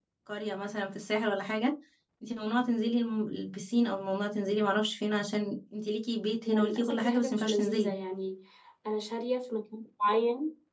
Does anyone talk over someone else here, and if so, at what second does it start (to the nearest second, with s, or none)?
6 s